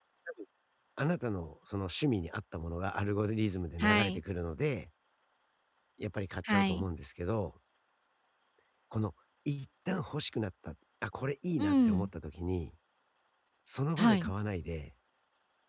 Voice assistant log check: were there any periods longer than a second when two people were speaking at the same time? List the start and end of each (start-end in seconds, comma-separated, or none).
none